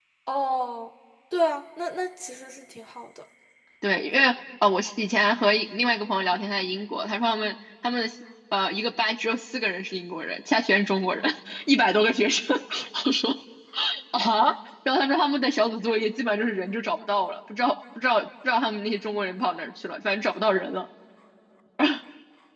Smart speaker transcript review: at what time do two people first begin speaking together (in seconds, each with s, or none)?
none